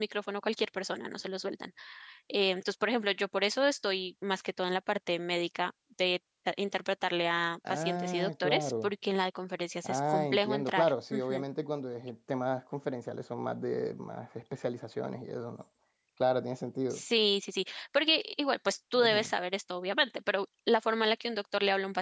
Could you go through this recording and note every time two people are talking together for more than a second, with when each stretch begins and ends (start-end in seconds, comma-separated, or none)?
7.7-8.9, 9.8-11.4